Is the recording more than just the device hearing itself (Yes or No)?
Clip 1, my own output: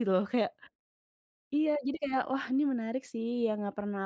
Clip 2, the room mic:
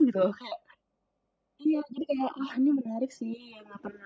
No